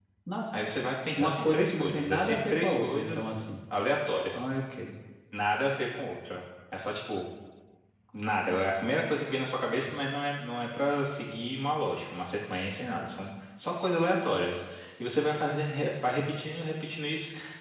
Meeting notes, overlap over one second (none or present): present